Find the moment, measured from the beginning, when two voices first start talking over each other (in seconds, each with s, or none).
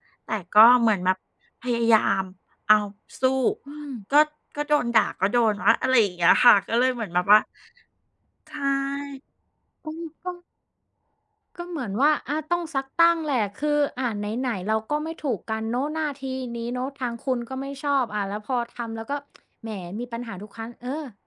none